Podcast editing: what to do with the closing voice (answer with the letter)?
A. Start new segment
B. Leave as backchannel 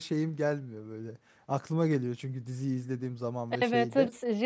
A